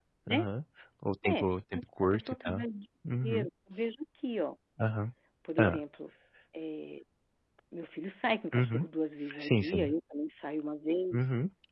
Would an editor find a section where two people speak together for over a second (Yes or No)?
Yes